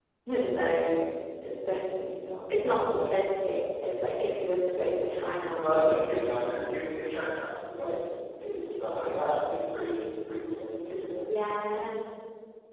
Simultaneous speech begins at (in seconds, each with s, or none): 5.6 s